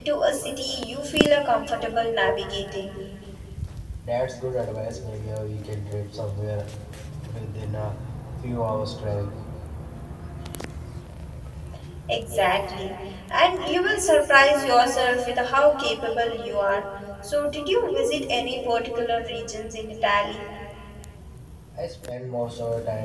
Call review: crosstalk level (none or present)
none